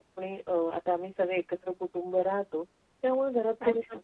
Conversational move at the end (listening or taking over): listening